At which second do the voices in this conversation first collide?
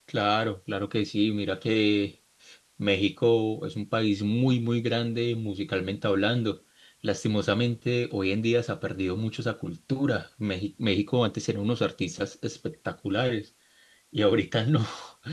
none

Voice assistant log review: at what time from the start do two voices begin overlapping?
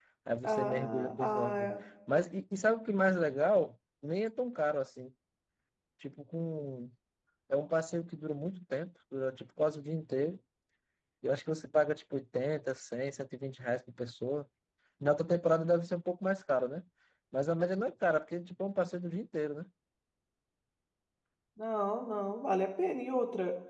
0.5 s

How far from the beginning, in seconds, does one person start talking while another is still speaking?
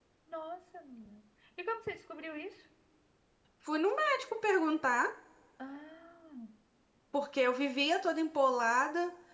none

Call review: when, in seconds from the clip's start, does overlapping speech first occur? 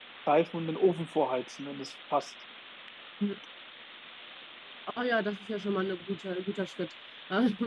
none

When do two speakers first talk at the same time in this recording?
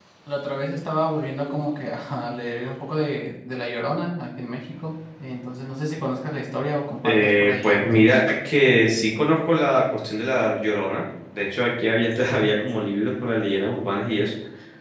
7.0 s

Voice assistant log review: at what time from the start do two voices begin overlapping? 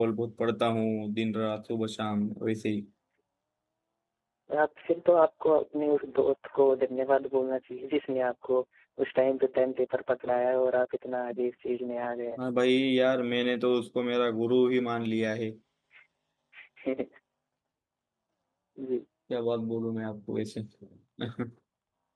none

